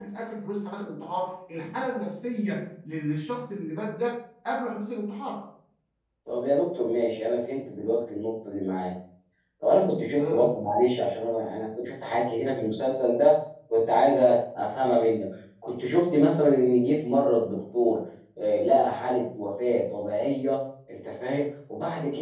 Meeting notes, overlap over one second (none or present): none